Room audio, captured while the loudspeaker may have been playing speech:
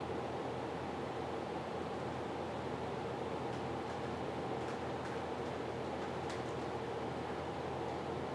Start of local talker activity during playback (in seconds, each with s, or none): none